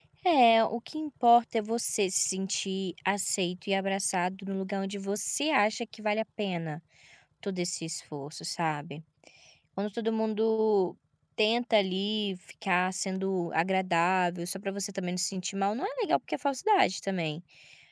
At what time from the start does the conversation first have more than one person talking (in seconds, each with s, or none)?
none